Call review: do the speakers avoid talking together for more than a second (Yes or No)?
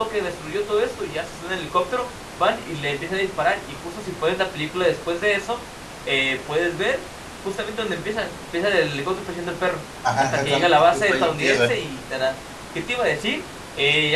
No